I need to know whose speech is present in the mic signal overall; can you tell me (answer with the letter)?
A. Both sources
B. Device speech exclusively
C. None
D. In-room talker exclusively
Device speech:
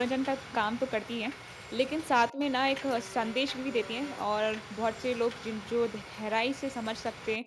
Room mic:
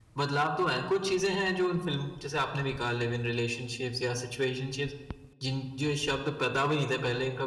D